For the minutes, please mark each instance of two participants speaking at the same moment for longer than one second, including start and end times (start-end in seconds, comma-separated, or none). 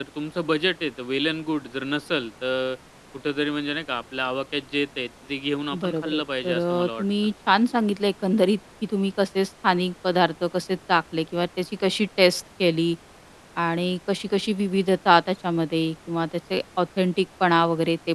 5.8-7.3